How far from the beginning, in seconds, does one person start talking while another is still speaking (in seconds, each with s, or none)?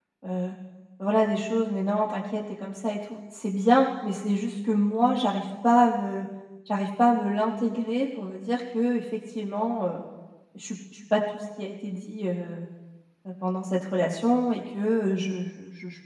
none